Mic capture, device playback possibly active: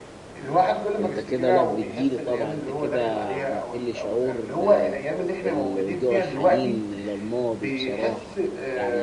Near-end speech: present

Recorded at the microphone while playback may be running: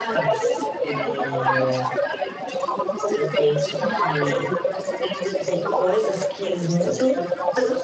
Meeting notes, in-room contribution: present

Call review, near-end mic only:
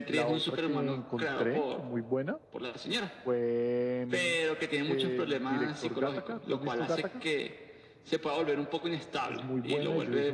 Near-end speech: present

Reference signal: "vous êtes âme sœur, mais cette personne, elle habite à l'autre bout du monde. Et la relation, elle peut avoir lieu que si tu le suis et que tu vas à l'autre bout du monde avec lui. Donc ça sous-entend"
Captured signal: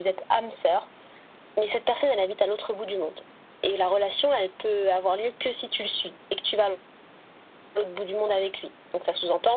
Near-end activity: none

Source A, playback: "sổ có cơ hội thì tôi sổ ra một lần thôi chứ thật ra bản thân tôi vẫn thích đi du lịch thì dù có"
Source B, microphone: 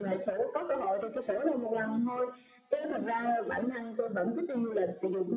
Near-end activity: none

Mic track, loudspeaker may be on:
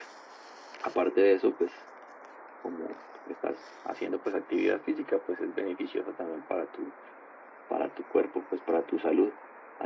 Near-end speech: none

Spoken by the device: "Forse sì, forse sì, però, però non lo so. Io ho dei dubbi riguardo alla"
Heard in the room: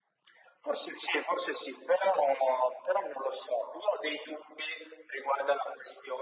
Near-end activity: none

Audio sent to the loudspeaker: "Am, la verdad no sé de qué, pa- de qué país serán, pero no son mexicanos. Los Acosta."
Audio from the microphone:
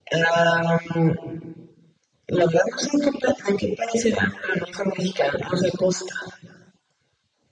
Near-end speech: none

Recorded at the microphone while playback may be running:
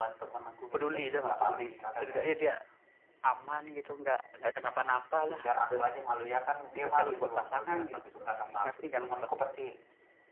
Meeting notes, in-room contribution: present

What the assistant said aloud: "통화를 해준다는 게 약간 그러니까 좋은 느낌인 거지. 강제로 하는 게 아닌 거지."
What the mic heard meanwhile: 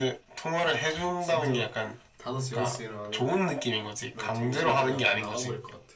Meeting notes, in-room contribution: present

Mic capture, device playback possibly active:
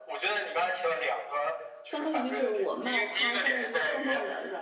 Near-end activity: present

